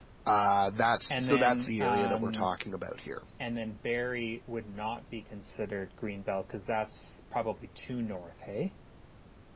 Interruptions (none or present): present